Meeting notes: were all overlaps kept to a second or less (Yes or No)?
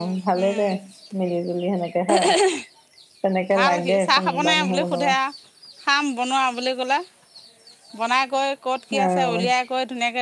No